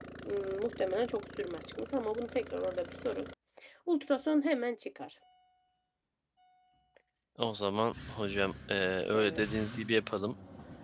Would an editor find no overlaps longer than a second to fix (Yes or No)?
Yes